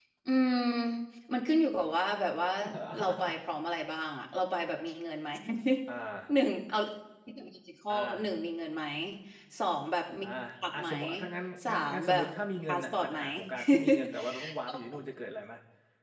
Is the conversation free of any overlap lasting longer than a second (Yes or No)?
No